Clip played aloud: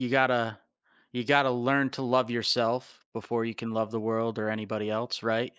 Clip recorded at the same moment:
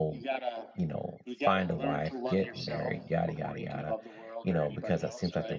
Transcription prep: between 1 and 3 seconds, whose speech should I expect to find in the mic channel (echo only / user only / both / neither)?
both